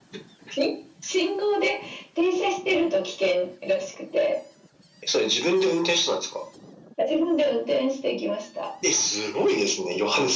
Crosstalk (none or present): none